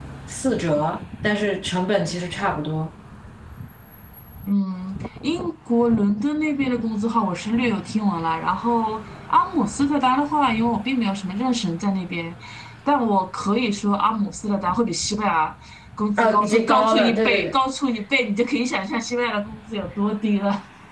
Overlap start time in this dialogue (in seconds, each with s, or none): 16.2 s